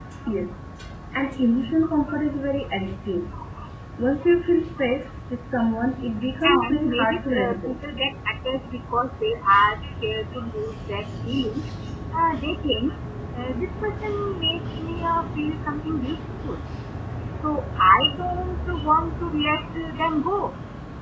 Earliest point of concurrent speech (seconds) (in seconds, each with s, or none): 6.4 s